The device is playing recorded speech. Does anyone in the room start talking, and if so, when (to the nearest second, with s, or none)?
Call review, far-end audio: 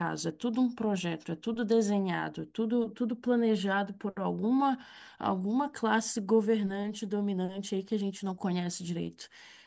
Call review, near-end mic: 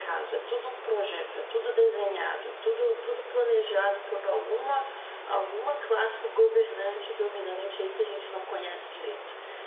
none